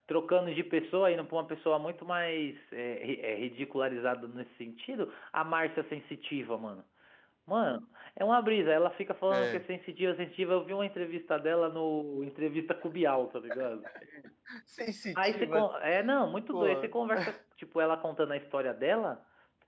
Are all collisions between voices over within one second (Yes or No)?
Yes